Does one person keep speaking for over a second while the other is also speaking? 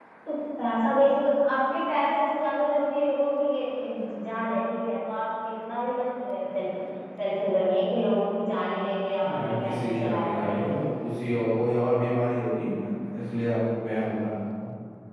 Yes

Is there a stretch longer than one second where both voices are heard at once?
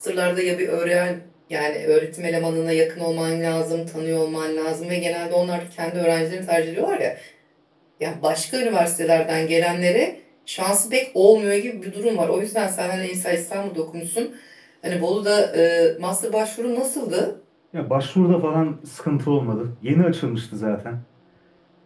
No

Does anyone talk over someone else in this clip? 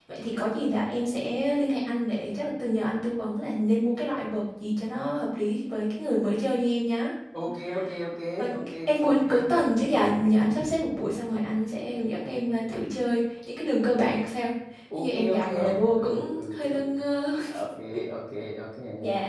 Yes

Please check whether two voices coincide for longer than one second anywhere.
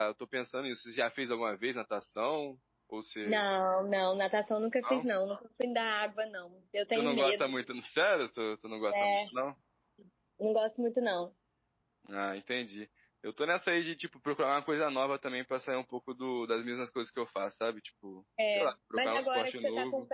Yes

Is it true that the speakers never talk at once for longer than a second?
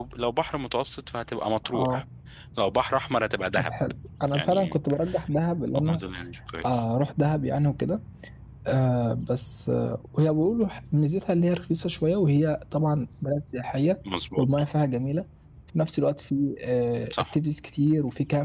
Yes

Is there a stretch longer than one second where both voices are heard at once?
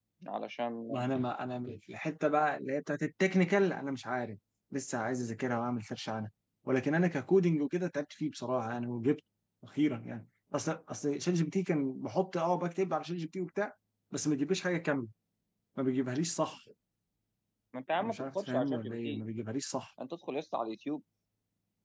Yes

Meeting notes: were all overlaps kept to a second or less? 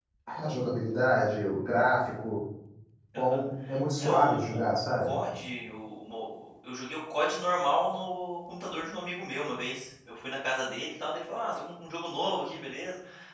No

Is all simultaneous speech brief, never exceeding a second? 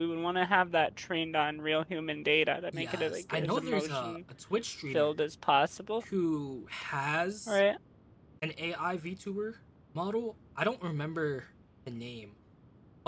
No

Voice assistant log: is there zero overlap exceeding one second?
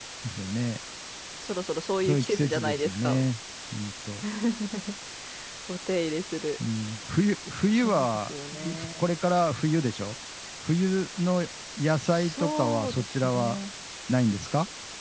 No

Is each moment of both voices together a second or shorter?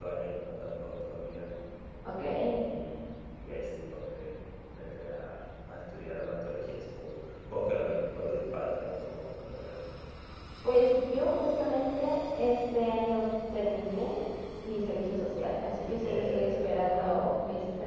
No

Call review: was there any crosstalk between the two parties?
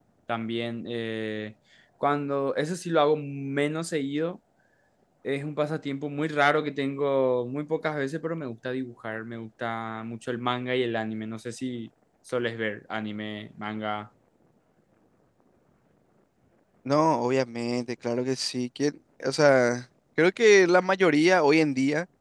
No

